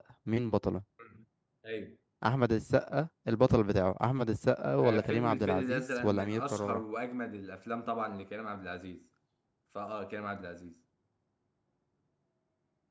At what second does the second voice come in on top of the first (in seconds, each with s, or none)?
4.8 s